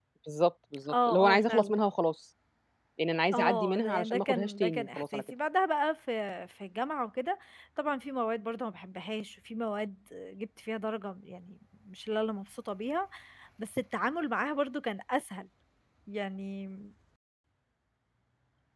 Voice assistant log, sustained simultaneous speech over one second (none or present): present